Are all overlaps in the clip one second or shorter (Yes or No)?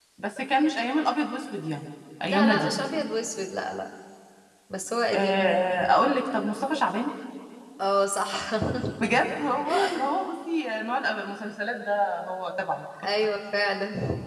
Yes